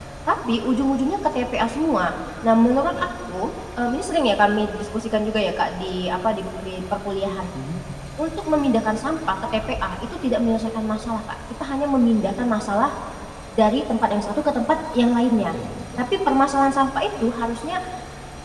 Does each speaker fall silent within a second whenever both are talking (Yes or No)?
Yes